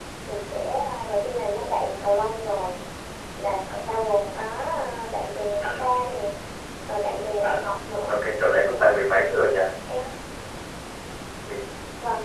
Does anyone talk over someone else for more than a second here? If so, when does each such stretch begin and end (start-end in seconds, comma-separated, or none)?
none